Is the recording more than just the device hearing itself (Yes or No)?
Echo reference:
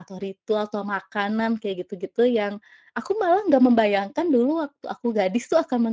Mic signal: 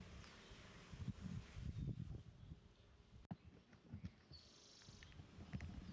No